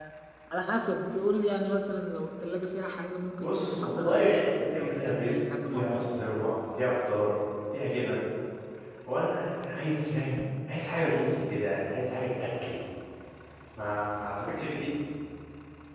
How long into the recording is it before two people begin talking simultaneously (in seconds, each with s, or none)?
3.4 s